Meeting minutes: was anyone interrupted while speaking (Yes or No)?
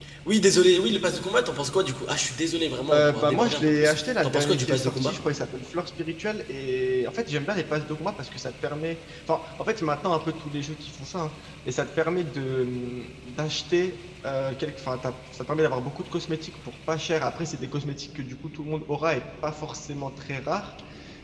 Yes